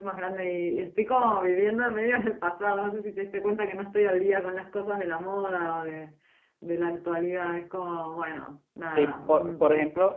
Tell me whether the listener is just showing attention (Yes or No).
No